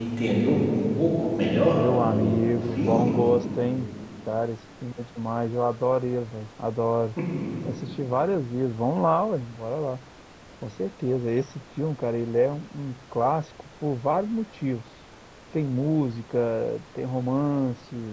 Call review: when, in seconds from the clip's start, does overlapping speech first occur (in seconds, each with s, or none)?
1.5 s